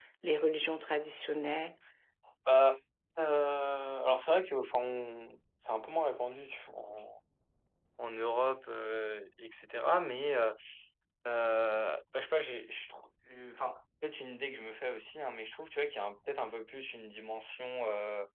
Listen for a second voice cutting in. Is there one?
No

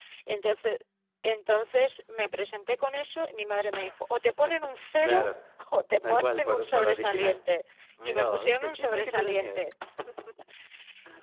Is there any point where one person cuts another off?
Yes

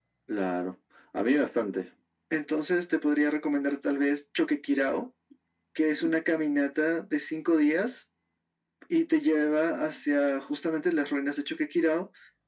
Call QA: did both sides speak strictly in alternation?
Yes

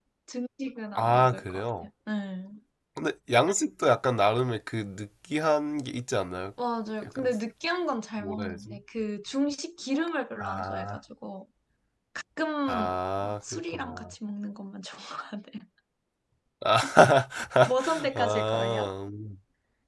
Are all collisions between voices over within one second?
No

